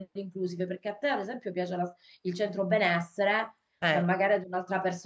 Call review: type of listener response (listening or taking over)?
listening